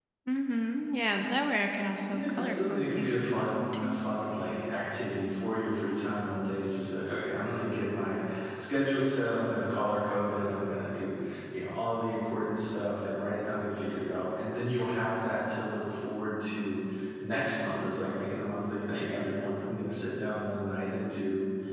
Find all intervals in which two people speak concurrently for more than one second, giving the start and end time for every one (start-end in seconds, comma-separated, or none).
2.0-4.0